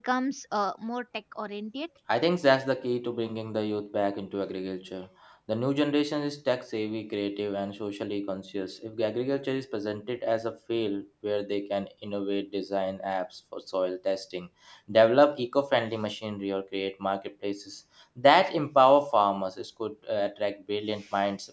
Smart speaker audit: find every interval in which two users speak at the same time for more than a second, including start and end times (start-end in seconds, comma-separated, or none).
none